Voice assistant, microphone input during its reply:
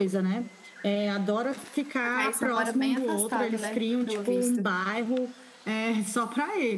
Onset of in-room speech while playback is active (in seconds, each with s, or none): 2.0 s